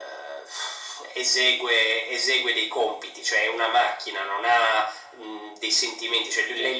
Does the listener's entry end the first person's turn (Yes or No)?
No